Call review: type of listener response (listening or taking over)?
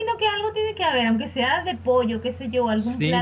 taking over